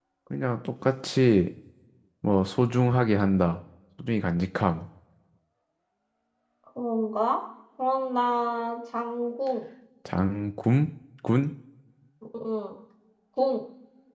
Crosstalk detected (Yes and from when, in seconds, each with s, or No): No